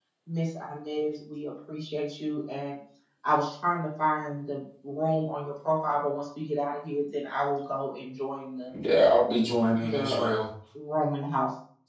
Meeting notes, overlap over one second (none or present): none